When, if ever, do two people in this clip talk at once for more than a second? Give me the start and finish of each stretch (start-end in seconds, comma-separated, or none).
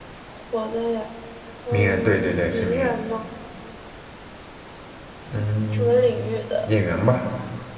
1.7-3.0